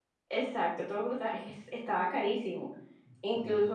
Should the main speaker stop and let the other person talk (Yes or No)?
No